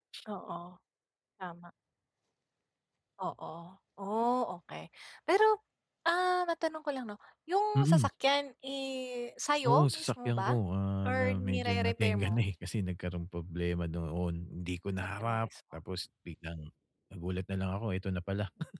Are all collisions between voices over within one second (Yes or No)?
No